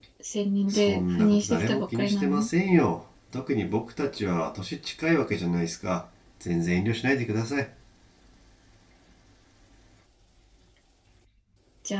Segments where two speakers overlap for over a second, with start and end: 0.7-2.5

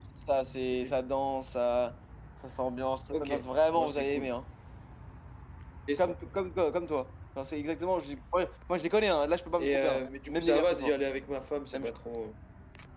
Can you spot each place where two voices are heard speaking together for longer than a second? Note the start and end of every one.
9.6-10.9

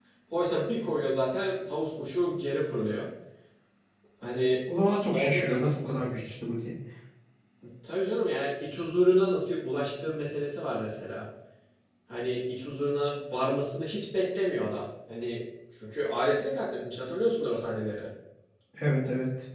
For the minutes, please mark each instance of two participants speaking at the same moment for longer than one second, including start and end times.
none

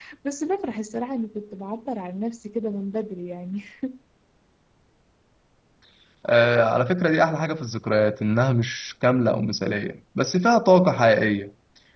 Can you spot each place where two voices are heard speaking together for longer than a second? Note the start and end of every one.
none

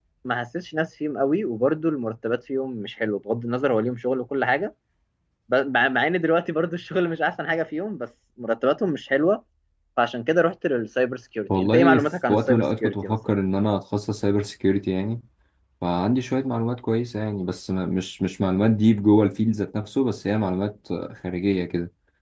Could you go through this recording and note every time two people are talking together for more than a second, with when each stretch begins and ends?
11.6-13.2

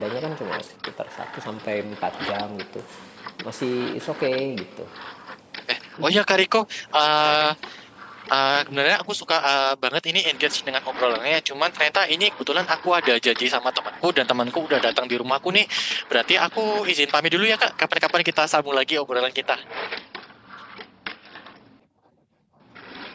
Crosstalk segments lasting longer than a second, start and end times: none

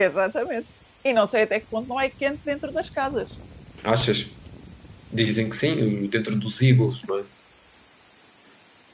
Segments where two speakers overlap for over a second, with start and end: none

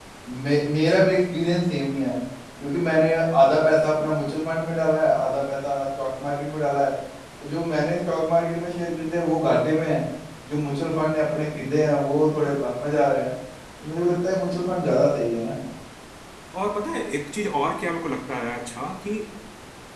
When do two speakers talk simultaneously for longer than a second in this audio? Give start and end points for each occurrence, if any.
none

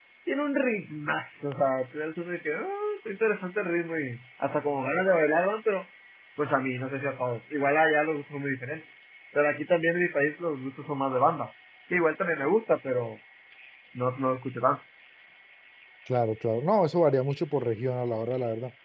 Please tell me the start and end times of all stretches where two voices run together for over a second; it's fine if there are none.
none

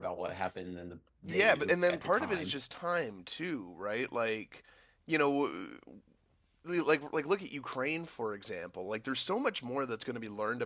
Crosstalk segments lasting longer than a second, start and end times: 1.3-2.6

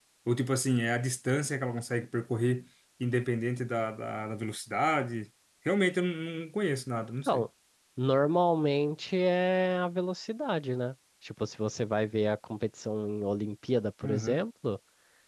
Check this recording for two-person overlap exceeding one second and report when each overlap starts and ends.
none

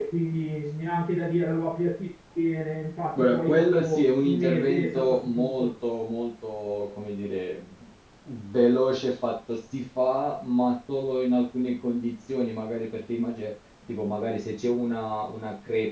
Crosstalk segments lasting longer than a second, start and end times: 3.1-5.7

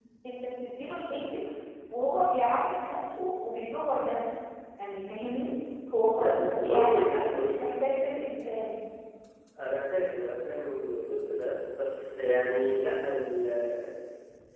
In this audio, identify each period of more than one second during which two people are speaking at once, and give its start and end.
6.2-7.6

